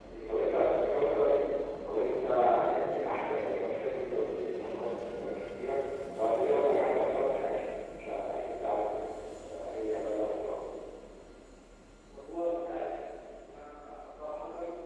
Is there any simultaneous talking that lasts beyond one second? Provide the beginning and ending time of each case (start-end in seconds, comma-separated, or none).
none